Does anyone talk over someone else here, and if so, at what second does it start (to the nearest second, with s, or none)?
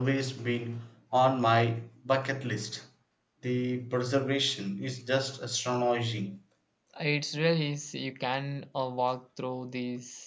none